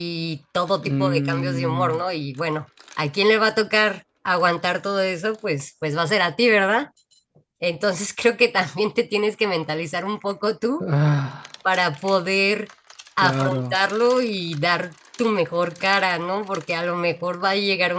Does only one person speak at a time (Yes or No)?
No